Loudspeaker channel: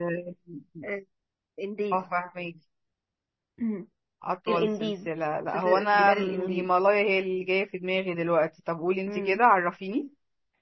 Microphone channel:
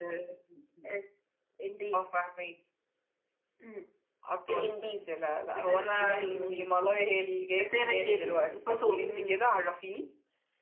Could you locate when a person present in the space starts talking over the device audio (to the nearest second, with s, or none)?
8 s